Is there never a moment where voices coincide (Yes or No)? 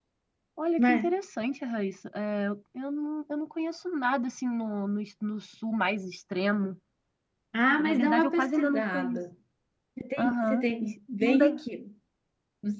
No